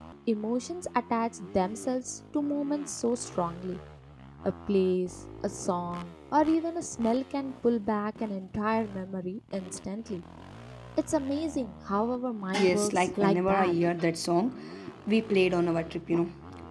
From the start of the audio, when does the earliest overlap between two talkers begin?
13 s

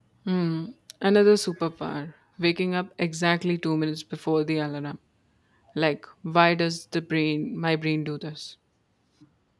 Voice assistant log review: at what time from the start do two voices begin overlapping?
none

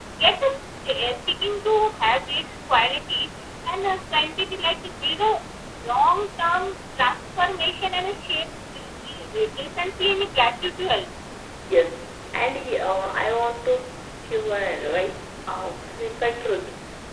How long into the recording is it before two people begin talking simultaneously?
none

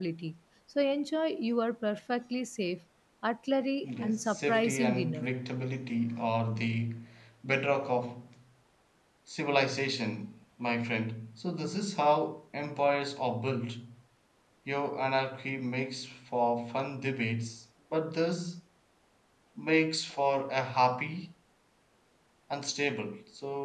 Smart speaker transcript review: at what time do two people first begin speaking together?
4 s

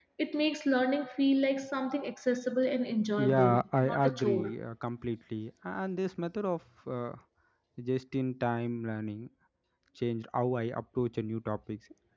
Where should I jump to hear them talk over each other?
3 s

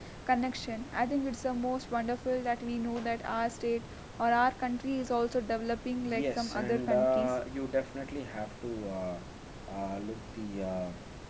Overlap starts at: 6 s

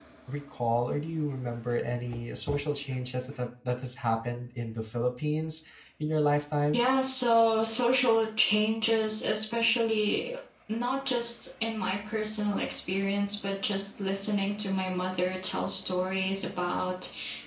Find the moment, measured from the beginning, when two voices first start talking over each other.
none

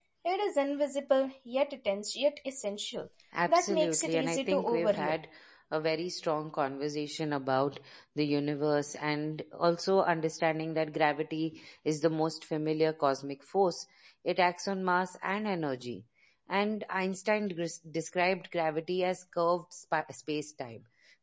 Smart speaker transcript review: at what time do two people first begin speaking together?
3 s

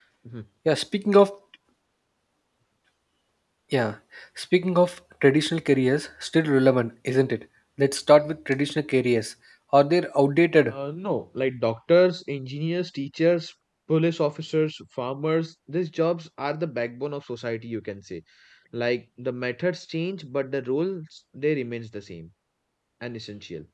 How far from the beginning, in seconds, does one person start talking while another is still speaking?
none

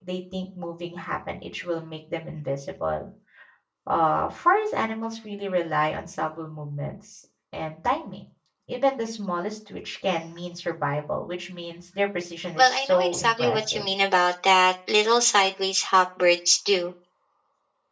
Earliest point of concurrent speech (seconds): 13 s

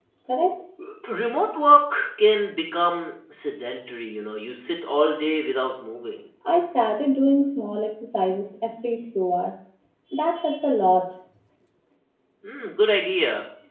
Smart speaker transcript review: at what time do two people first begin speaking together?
none

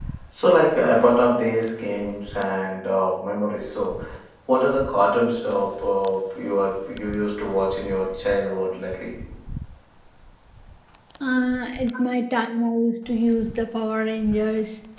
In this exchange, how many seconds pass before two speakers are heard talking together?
none

